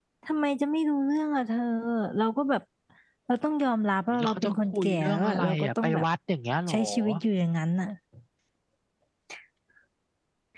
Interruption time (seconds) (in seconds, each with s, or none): 4.1 s